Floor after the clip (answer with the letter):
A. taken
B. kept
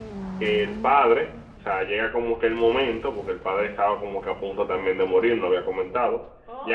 A